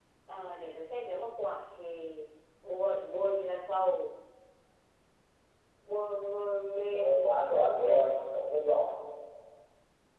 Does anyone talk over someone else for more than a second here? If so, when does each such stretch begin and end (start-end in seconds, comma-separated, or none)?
6.9-8.2